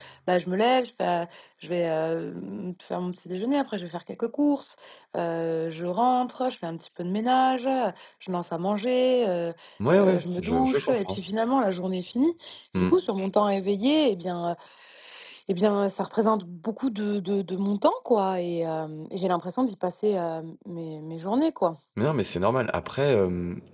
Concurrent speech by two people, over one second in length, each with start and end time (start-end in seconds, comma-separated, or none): 9.9-11.2